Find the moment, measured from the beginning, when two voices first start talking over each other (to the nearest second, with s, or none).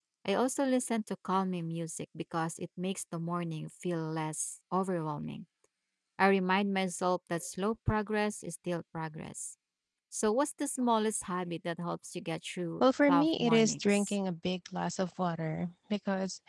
13 s